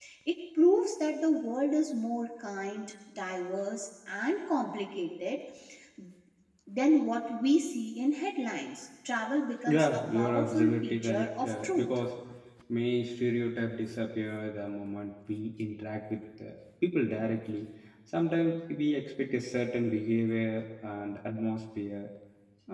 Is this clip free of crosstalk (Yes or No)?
No